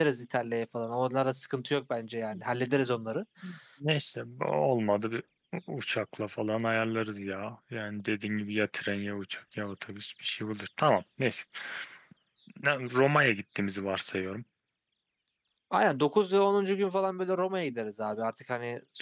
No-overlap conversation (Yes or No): Yes